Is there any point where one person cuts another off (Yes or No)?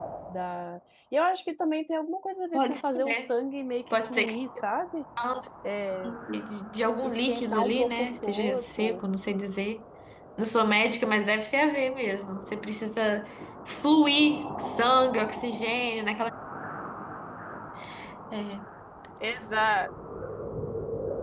Yes